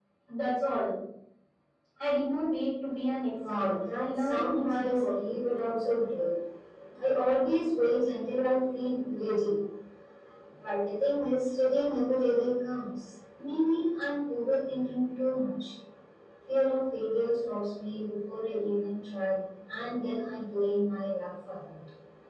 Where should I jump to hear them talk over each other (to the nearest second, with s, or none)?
3 s